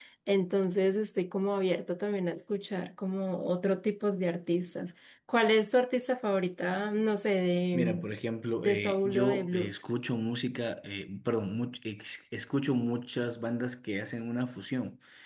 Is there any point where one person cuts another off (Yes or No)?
Yes